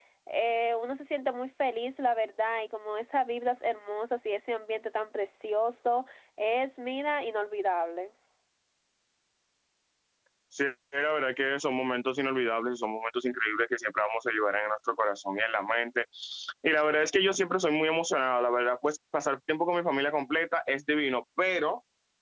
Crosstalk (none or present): none